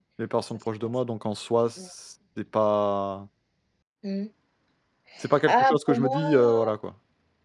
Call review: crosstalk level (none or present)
present